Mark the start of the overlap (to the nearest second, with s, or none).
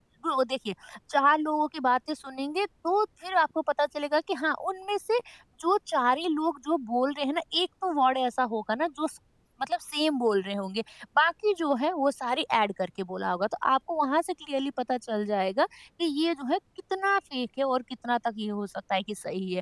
none